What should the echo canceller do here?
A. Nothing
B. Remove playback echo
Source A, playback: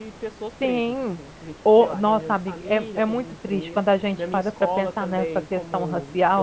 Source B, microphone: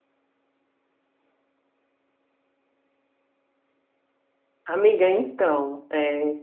A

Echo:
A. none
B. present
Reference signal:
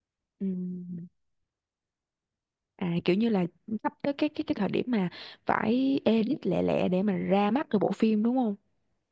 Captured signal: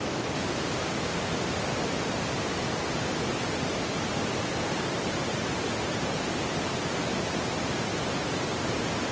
A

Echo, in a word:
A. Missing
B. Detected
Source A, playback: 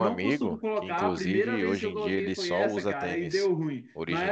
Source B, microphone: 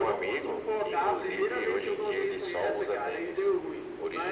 B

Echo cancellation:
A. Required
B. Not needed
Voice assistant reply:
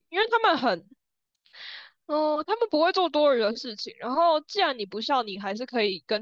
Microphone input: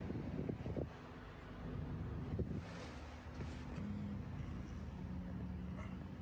B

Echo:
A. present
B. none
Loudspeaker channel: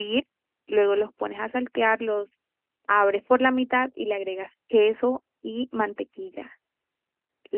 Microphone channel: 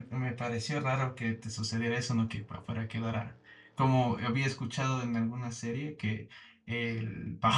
B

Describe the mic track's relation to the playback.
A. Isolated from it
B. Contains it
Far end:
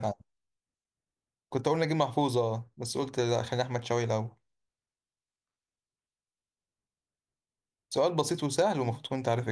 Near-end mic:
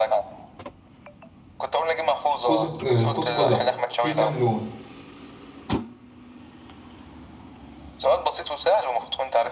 B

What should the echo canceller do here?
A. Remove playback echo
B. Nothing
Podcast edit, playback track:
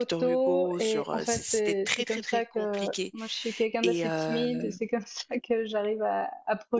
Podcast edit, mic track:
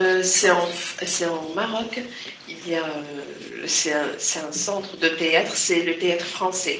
B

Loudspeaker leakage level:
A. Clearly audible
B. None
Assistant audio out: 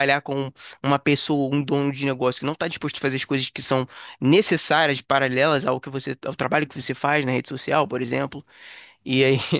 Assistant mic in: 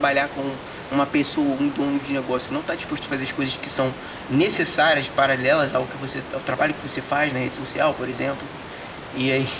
A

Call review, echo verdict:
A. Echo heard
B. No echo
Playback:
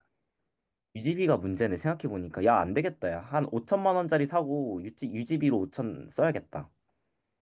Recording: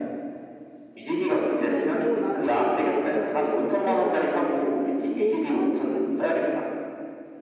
A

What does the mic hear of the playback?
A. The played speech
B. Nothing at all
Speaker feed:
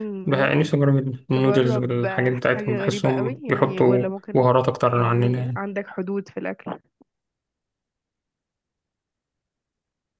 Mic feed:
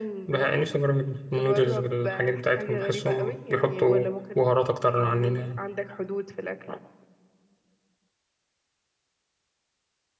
A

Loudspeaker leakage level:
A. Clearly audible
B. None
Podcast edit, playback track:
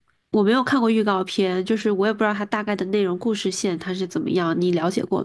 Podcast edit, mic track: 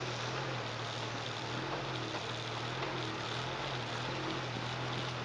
B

